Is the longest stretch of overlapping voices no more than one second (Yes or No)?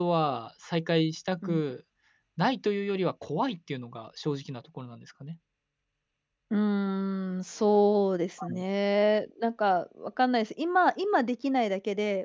Yes